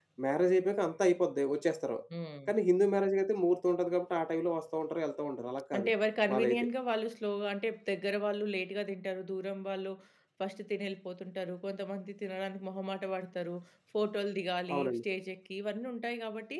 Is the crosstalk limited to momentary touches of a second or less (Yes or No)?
Yes